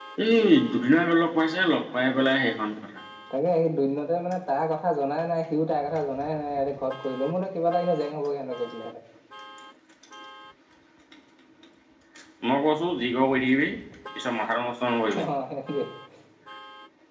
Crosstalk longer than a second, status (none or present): none